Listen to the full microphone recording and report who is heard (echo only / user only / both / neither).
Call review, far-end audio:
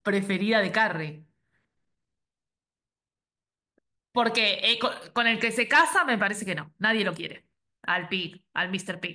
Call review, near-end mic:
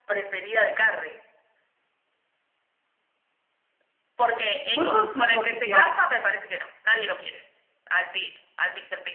both